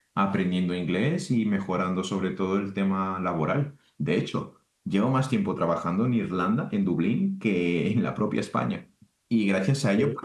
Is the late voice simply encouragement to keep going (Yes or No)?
Yes